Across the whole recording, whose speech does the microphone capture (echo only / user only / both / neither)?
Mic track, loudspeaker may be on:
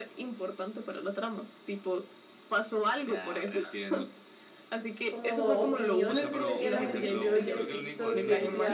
both